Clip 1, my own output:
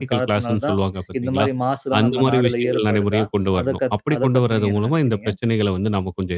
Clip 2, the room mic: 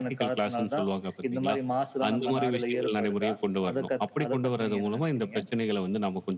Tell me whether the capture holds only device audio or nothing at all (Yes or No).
Yes